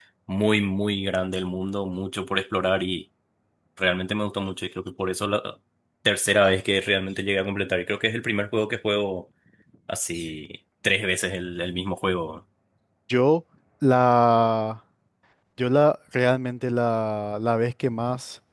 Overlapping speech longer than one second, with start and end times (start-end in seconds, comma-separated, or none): none